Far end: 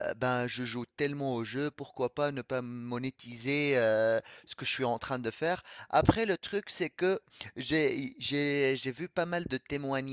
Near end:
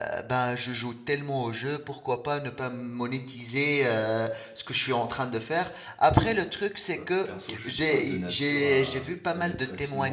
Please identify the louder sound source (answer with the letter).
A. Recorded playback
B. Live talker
A